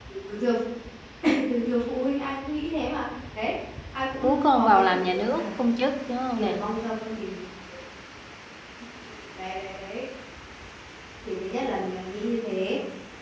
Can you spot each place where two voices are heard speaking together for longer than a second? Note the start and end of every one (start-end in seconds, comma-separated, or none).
4.2-5.4